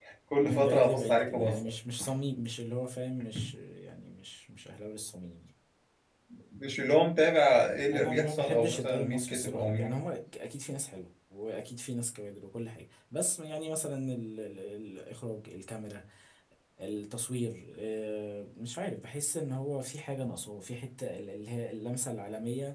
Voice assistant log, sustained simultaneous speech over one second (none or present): present